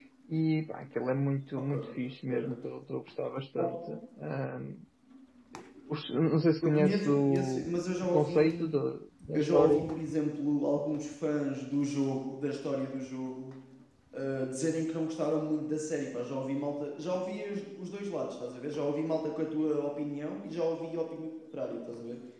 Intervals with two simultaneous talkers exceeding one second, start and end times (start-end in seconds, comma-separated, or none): 6.6-8.4